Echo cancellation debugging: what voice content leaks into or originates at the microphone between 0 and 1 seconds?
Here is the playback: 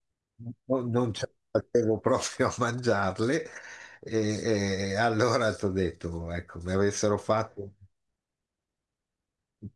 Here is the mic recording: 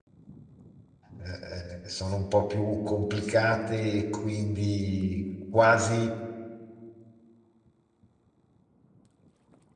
neither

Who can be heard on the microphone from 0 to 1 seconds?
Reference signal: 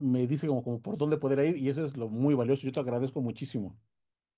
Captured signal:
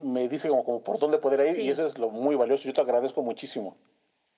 echo only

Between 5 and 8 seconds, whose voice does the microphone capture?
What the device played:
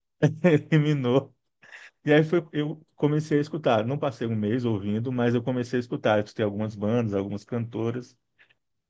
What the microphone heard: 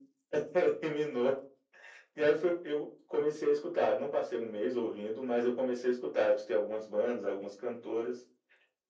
echo only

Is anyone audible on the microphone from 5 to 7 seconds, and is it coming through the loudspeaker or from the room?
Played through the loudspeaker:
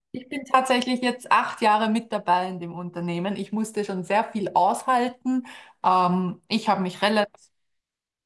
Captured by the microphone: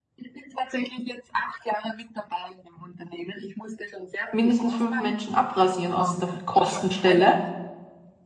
both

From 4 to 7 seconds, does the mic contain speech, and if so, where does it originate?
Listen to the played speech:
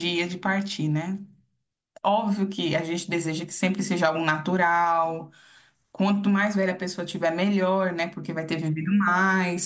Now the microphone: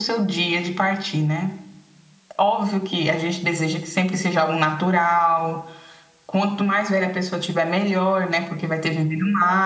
echo only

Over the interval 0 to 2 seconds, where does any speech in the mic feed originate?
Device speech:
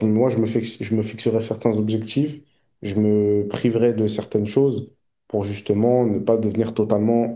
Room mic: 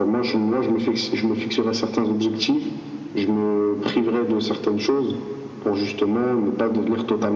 echo only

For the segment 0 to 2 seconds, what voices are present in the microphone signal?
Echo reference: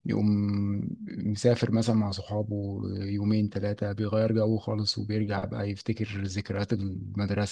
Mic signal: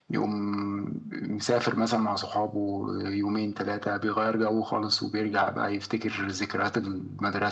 echo only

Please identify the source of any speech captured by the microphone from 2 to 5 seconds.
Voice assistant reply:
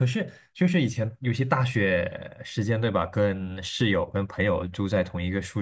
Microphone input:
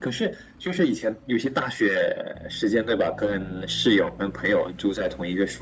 echo only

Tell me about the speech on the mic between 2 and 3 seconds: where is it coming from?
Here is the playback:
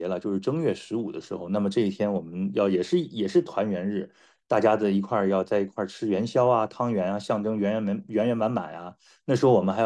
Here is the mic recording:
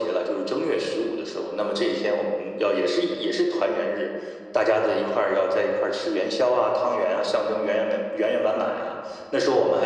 echo only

